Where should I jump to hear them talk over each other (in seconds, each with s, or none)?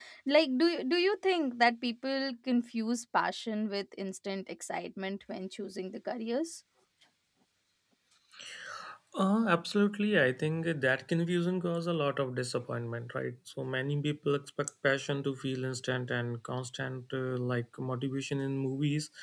none